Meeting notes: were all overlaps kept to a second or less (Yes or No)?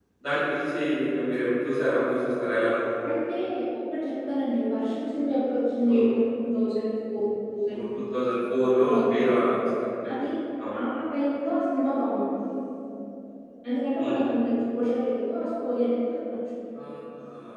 Yes